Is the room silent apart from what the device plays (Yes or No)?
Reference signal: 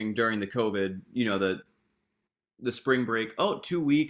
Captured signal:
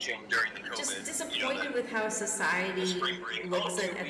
No